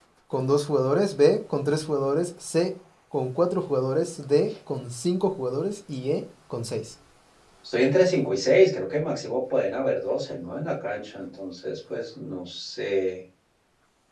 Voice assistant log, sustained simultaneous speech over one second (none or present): none